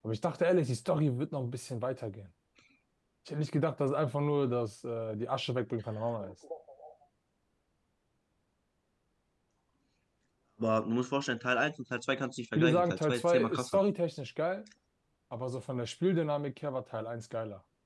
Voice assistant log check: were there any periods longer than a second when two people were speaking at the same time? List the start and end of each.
12.6-13.8

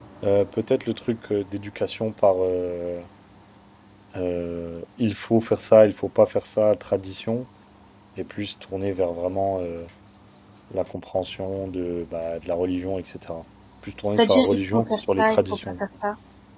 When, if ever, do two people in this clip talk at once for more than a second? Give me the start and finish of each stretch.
14.2-15.7

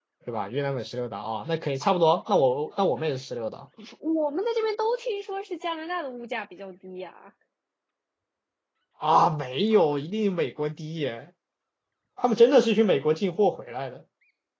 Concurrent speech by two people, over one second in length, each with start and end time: none

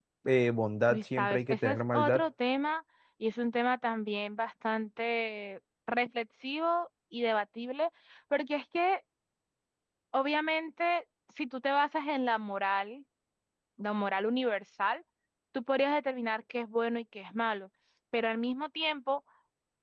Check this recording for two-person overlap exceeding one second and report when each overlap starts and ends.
0.9-2.2

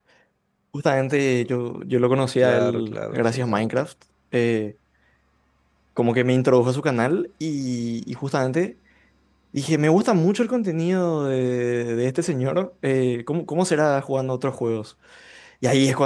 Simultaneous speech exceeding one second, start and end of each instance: 2.4-3.9

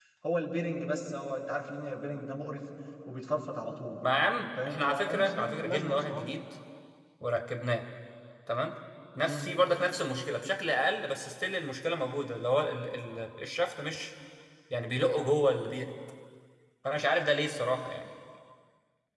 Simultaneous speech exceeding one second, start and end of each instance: 4.7-6.3

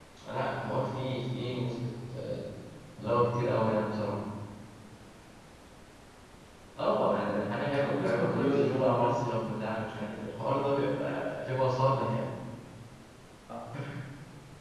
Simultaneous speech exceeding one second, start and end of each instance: 7.8-9.2

